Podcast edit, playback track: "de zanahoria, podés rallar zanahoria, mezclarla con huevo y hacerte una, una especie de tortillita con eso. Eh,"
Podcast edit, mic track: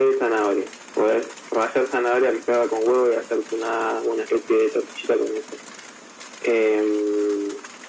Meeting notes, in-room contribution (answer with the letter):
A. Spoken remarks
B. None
B